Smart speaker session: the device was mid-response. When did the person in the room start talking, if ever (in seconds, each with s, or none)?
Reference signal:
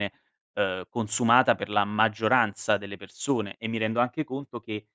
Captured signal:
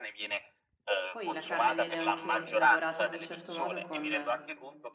1.1 s